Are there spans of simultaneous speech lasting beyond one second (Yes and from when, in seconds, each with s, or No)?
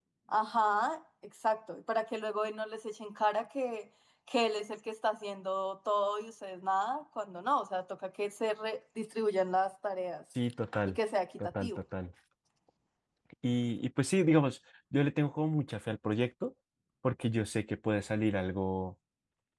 No